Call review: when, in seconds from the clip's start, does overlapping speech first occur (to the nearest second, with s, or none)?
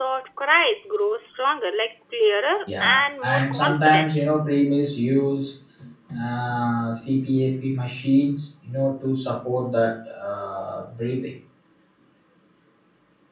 3 s